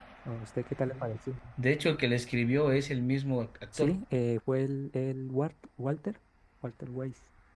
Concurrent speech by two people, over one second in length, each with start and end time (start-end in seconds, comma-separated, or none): none